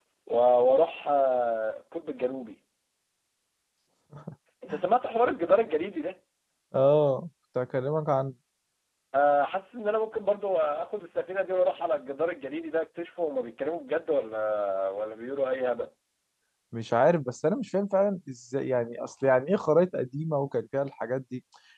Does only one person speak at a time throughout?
Yes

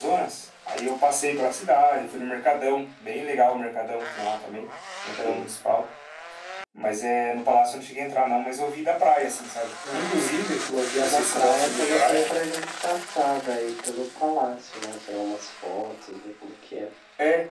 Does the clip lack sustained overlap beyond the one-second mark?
No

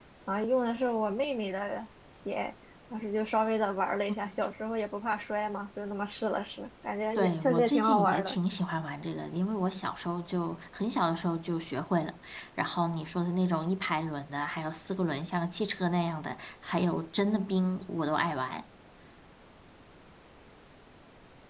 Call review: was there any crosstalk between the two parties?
Yes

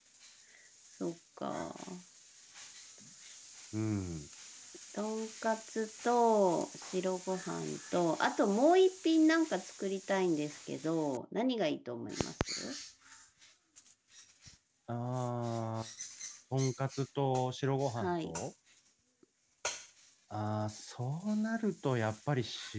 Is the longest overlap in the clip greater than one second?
No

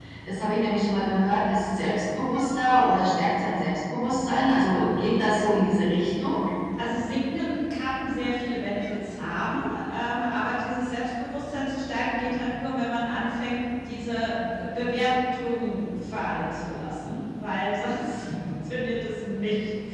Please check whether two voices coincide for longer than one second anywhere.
No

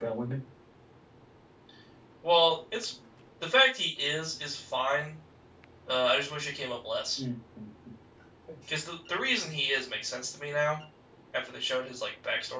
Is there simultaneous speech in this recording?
No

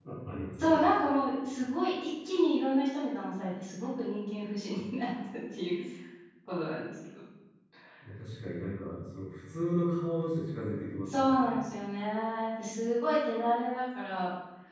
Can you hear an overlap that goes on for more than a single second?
No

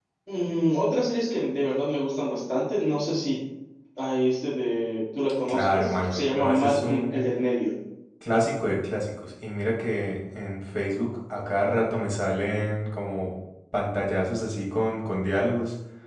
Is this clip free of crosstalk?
No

